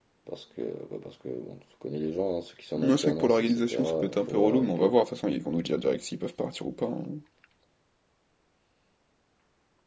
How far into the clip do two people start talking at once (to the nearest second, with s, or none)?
3 s